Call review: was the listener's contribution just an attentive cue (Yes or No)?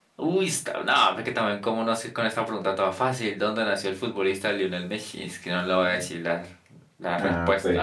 No